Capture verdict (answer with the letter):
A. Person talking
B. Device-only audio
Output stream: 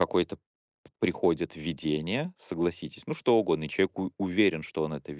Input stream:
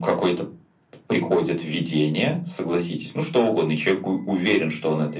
B